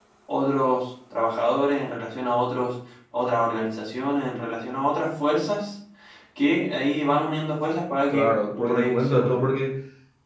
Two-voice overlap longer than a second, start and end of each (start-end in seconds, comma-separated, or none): 8.1-9.6